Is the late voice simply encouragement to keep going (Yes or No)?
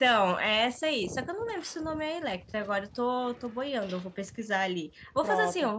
No